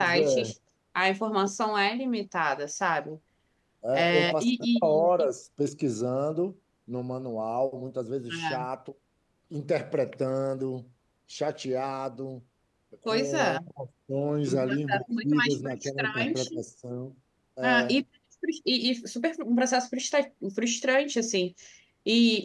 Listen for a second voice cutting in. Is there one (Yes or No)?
Yes